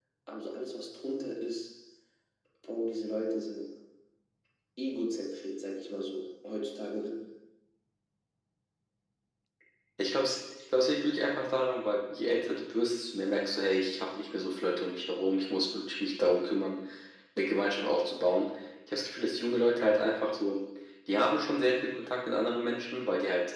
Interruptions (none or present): none